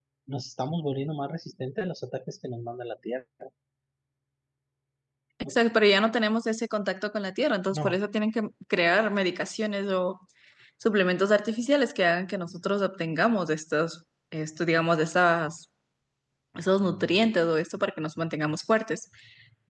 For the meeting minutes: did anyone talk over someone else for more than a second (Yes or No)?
No